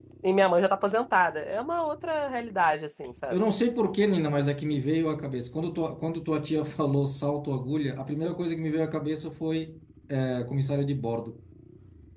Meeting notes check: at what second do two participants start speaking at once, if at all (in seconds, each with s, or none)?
none